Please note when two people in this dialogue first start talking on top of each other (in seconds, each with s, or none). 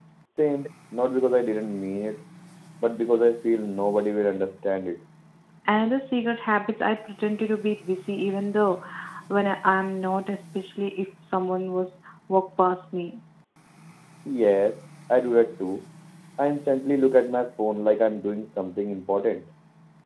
none